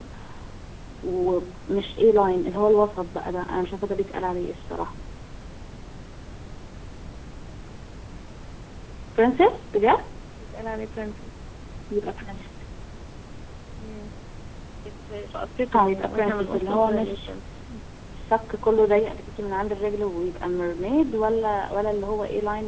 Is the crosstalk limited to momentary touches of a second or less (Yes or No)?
No